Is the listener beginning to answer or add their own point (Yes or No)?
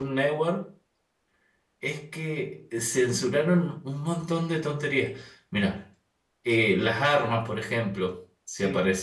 No